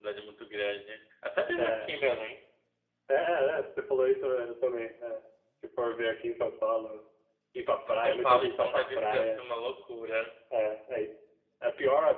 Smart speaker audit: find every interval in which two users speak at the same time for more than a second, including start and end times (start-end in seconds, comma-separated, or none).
7.9-9.4